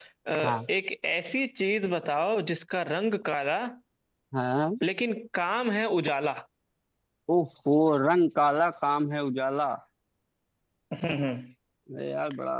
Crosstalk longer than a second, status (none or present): none